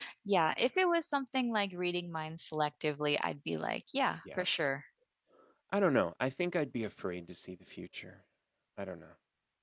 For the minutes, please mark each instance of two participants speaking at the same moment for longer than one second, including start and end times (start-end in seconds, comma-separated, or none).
none